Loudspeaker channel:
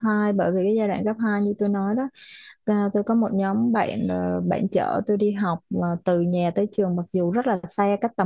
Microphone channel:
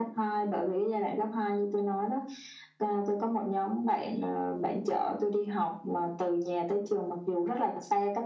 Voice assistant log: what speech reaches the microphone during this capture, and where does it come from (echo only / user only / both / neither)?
echo only